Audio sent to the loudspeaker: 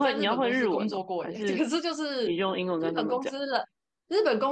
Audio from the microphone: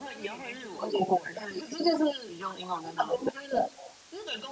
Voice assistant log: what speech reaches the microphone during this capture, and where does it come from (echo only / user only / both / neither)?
echo only